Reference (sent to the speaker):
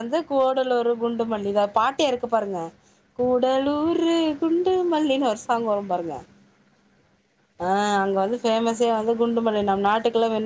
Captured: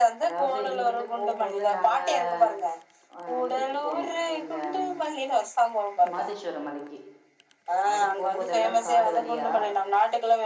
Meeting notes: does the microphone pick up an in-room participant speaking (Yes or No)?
Yes